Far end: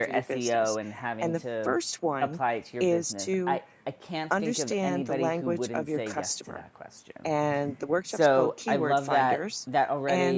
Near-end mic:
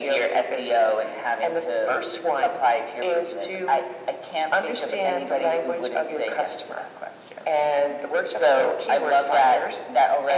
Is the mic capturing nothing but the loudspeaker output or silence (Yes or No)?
Yes